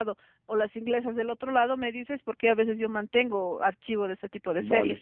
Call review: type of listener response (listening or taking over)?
taking over